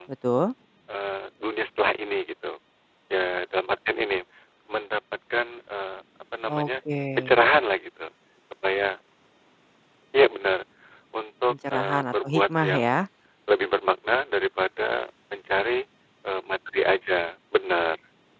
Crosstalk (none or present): present